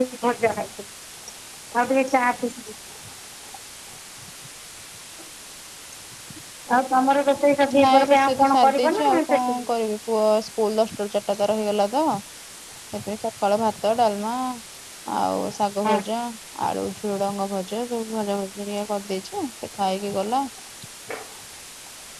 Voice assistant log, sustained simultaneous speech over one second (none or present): present